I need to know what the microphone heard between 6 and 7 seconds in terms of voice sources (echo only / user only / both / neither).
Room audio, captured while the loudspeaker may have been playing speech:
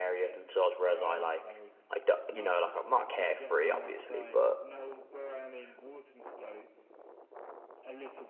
echo only